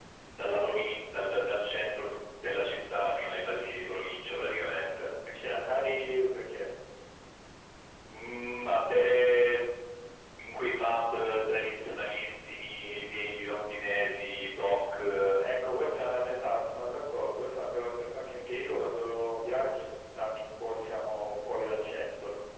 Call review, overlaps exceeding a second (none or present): none